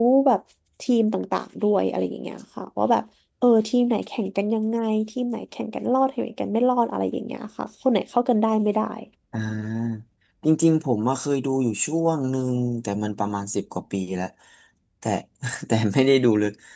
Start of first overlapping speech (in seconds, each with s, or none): none